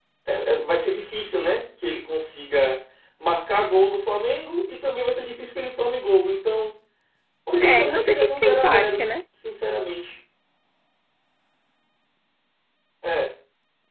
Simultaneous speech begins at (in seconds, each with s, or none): 7.6 s